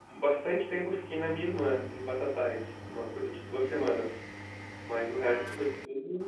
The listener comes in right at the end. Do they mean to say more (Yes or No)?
No